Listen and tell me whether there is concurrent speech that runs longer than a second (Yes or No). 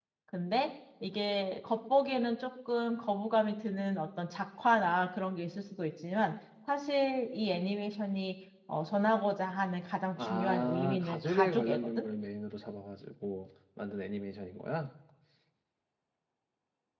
Yes